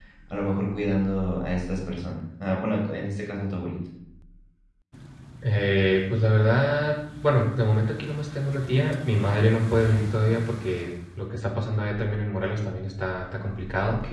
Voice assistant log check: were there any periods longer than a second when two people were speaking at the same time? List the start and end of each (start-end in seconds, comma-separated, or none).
none